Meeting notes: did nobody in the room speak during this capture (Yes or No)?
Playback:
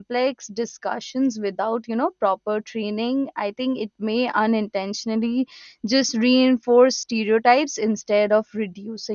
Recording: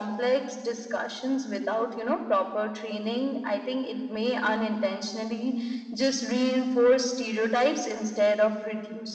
Yes